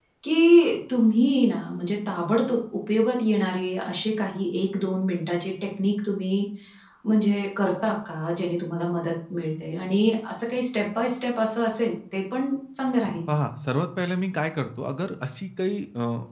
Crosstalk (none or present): none